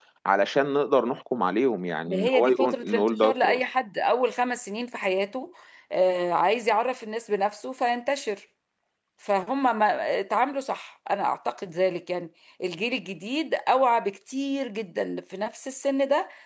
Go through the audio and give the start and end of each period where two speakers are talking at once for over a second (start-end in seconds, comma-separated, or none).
2.1-3.6